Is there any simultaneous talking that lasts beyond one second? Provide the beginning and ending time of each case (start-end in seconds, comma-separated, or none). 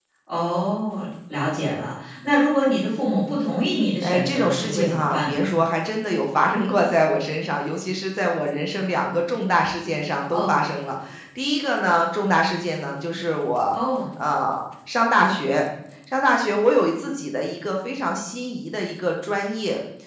4.0-5.4